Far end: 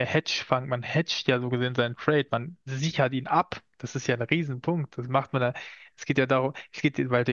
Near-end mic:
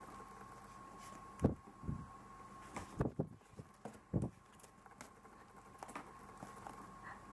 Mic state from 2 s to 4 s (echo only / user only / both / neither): neither